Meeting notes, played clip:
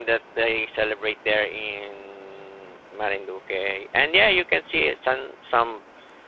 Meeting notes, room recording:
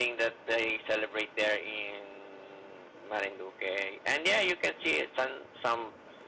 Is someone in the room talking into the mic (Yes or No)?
No